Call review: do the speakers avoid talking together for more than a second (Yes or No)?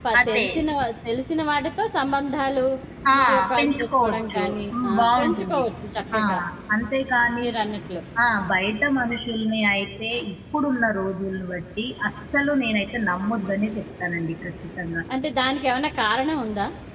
No